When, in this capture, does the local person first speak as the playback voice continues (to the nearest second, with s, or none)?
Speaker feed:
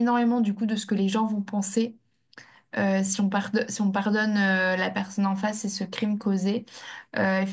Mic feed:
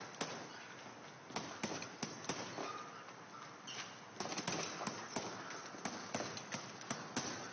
none